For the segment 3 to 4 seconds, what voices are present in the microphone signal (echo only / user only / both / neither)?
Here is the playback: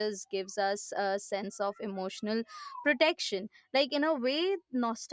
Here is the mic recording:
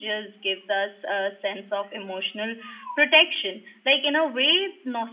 echo only